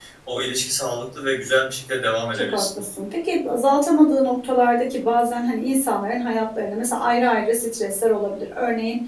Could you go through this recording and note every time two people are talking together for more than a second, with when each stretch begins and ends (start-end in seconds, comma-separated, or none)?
none